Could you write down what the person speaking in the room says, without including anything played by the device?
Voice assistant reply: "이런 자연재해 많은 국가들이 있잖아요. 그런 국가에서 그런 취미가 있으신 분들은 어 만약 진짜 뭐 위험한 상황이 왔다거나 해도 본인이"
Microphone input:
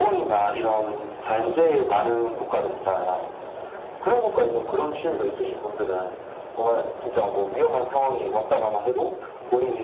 none

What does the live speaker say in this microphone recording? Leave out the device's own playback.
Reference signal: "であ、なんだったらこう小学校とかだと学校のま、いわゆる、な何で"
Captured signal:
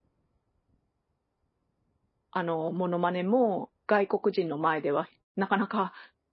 あの、モノマネも外国人の前では、なかなか

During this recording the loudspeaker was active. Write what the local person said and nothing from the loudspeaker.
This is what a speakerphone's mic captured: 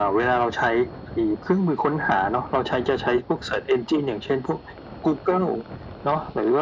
none

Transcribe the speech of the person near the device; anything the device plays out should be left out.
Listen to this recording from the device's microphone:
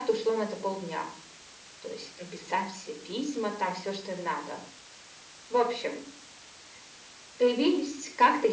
none

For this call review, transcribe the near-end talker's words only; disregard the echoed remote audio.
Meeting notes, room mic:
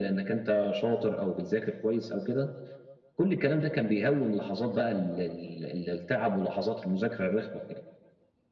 none

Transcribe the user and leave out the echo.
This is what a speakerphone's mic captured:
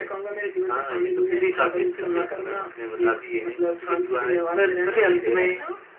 none

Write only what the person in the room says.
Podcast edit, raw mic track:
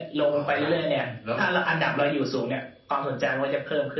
อ๋อ ครับ อืม แล้ว

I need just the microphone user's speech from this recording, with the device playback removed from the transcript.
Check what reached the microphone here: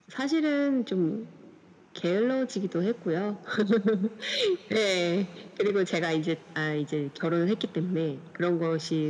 none

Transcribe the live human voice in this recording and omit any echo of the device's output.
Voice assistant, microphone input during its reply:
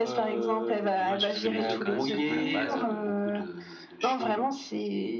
Dommage parce que les œufs, quand même c'est un peu la base, heu, de beaucoup de de choses.

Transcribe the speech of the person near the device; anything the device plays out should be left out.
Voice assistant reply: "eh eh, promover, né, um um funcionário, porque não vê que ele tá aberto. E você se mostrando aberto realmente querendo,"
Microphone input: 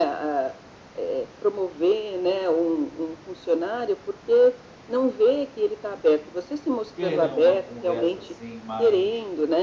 de ter, né, uma conversa, assim, mais

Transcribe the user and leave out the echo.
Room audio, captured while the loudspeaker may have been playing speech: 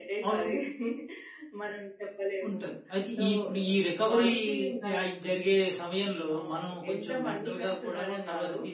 none

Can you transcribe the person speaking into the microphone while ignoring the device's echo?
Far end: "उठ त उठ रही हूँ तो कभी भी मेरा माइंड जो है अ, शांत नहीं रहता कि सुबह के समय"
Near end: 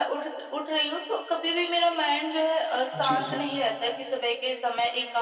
जी, जी।

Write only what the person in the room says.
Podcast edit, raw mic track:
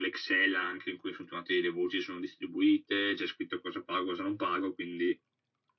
none

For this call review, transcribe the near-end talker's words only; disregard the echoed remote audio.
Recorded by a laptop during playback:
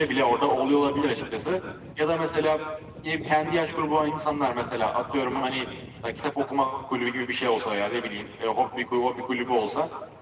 none

